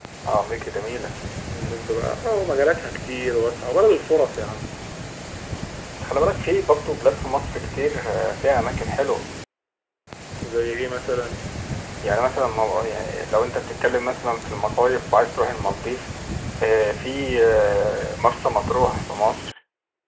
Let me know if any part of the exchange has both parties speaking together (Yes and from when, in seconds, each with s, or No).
No